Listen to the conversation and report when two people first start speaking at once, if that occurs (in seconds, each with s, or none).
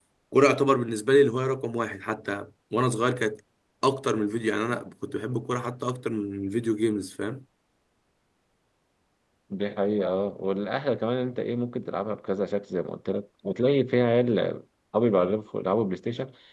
none